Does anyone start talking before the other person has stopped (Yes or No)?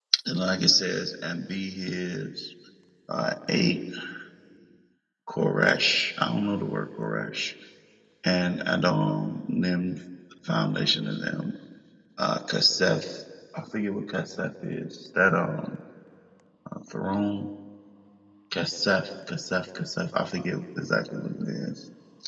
No